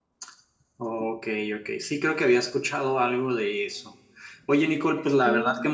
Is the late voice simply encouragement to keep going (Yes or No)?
Yes